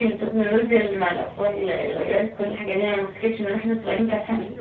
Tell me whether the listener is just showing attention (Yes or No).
No